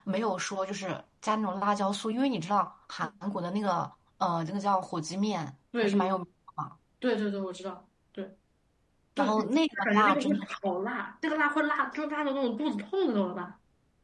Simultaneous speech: Yes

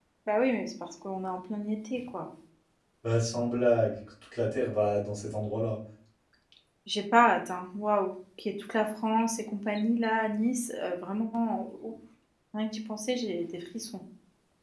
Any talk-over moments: No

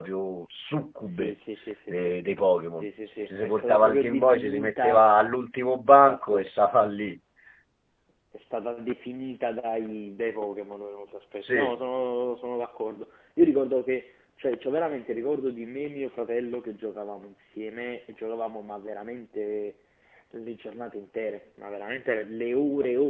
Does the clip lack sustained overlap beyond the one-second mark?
No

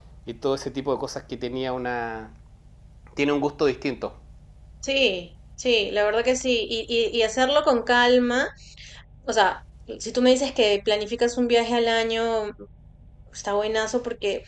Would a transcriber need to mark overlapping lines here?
No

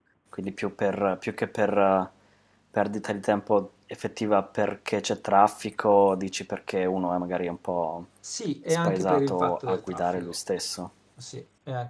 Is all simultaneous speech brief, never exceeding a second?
No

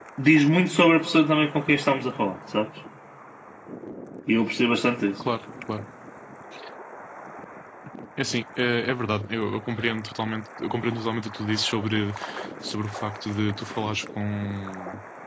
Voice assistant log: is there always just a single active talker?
Yes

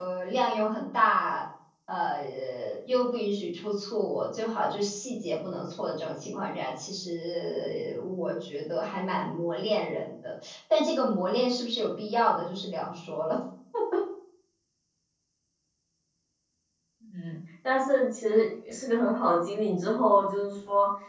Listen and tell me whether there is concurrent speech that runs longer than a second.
No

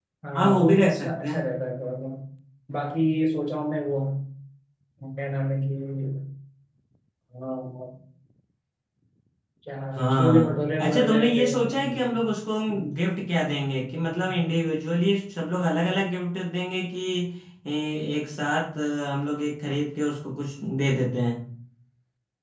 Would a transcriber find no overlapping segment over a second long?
No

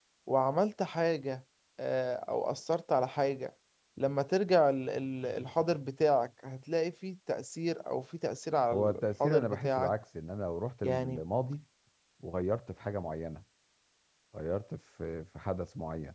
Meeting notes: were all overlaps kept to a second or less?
No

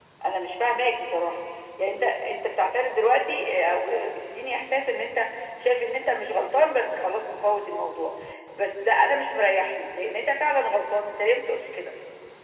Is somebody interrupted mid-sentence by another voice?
No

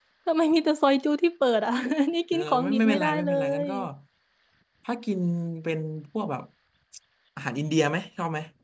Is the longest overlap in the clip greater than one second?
Yes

